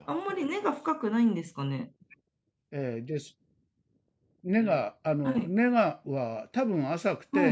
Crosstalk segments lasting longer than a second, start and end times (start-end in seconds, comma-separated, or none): none